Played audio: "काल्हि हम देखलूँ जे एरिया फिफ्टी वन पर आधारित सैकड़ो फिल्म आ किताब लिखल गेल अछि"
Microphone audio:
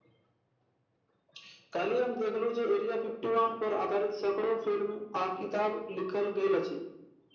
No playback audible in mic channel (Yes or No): No